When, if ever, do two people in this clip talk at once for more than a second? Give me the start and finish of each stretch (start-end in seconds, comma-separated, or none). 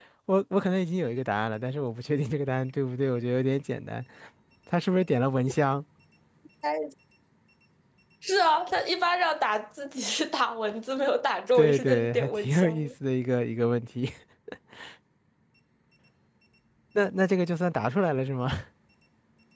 11.6-12.9